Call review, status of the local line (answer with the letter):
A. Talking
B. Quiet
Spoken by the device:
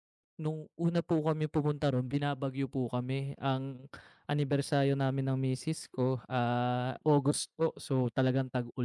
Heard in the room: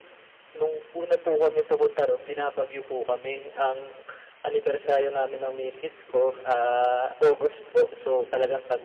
B